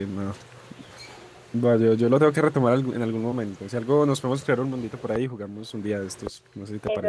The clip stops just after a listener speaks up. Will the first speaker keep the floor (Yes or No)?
No